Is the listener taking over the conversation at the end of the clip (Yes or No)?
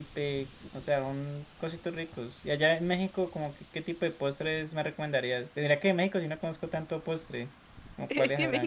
Yes